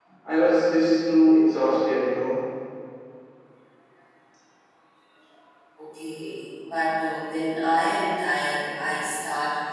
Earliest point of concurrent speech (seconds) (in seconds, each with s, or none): none